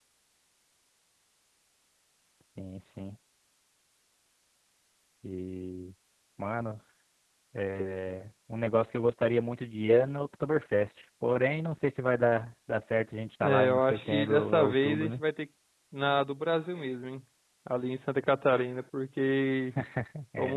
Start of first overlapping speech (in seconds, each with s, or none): 13.4 s